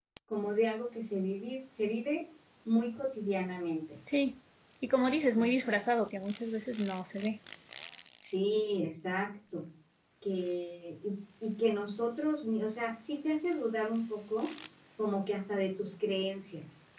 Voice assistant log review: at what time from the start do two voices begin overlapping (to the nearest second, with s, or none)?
none